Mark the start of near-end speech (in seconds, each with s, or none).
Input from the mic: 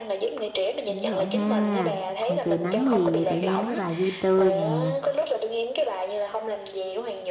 0.9 s